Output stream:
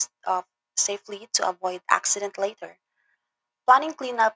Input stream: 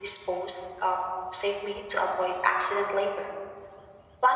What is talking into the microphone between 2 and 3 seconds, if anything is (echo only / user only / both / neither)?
echo only